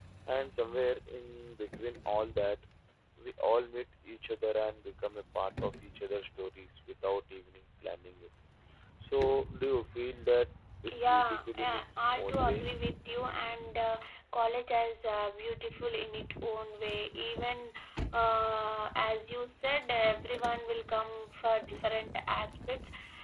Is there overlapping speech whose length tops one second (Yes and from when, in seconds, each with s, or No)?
Yes, from 10.9 s